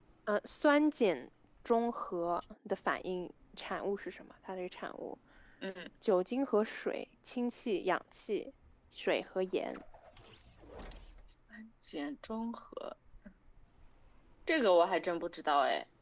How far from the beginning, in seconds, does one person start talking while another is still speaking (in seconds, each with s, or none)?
none